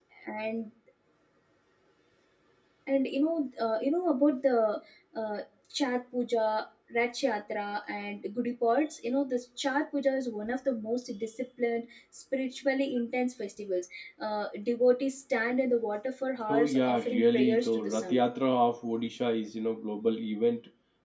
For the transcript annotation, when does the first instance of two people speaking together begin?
16.5 s

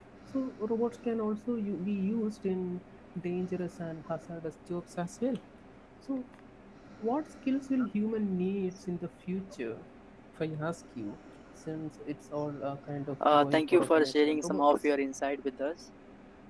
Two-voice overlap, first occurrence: 13.2 s

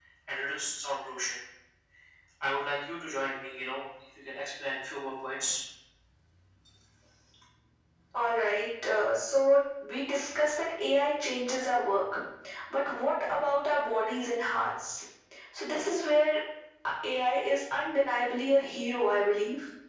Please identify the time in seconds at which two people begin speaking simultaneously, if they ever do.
none

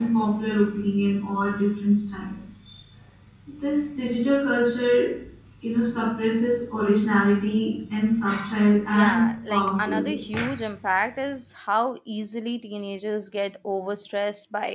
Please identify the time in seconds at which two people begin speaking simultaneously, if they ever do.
8.9 s

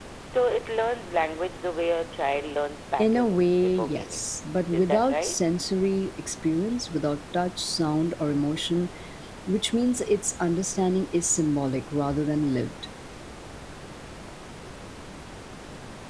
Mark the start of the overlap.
3.0 s

